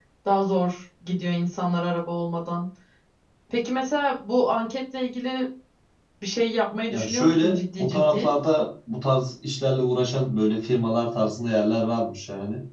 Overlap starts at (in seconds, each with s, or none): 6.9 s